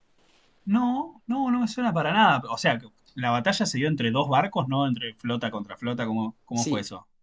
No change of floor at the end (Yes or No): No